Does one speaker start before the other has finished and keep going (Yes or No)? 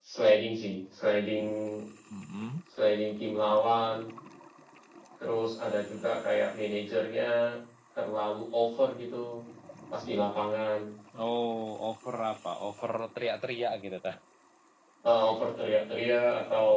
No